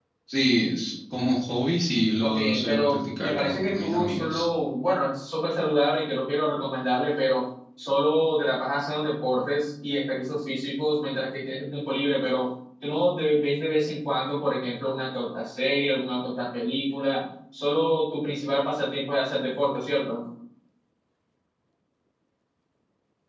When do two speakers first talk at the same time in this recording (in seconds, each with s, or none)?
2.2 s